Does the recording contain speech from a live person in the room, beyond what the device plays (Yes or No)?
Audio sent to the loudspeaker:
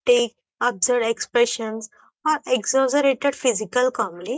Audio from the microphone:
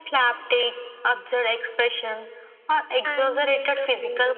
Yes